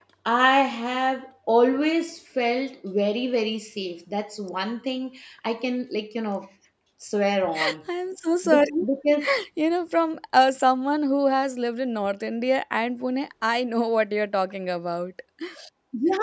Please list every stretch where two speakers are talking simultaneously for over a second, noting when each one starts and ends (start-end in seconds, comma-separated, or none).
none